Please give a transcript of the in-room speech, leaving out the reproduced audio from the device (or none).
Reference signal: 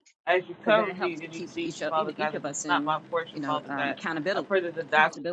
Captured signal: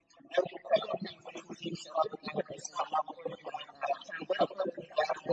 none